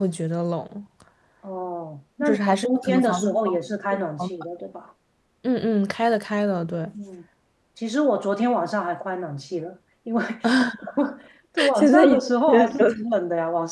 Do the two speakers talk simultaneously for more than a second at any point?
Yes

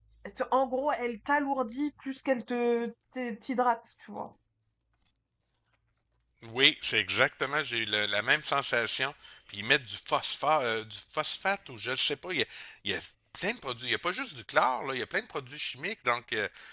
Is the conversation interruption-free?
Yes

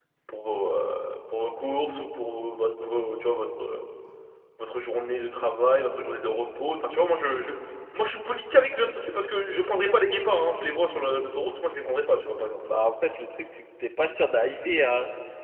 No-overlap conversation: Yes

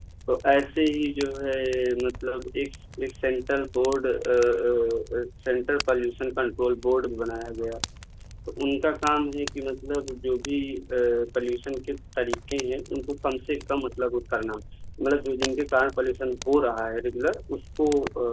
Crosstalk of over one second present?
No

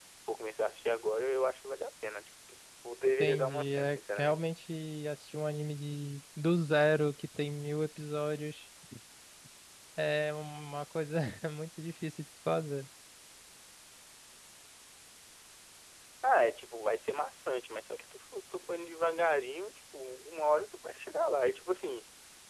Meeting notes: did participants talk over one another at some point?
Yes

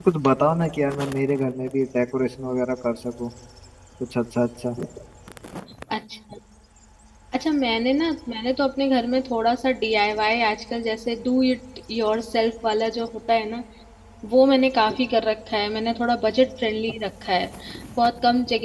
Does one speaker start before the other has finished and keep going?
No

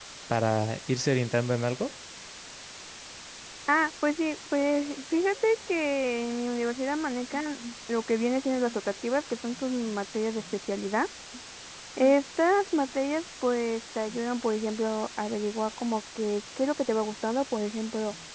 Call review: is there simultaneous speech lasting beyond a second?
No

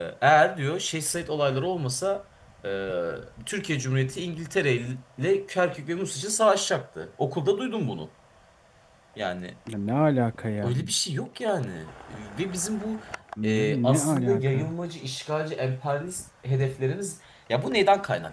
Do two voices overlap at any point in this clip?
Yes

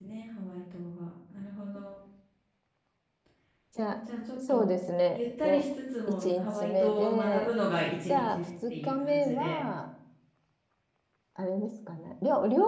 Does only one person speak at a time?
No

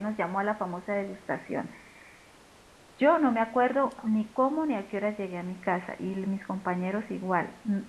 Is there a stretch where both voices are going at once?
No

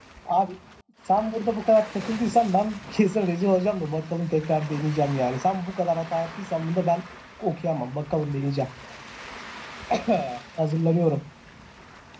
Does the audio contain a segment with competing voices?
No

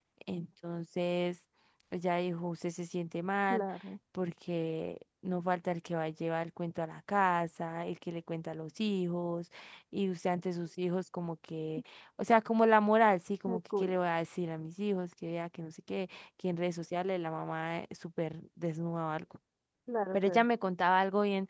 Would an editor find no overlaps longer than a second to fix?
Yes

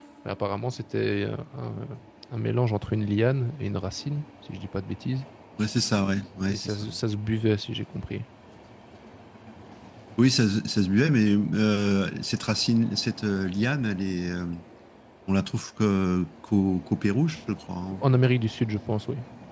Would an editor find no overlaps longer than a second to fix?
Yes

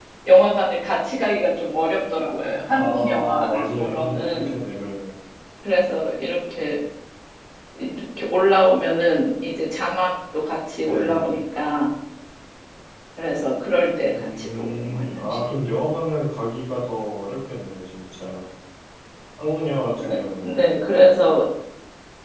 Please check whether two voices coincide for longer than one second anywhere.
Yes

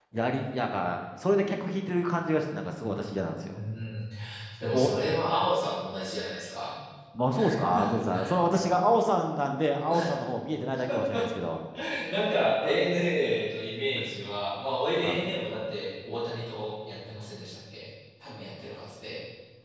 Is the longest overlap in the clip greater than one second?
No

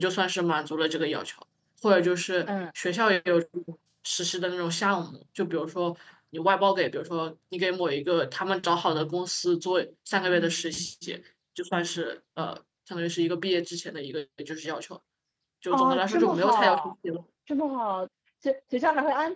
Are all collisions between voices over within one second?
No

